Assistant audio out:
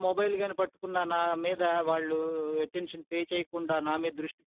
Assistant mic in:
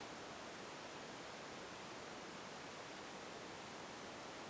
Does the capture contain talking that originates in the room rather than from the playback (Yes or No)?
No